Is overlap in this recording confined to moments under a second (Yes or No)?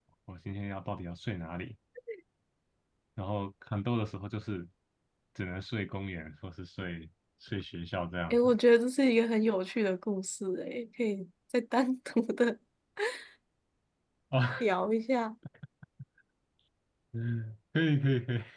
Yes